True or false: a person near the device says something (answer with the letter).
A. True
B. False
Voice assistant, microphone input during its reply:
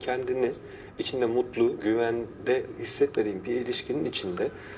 B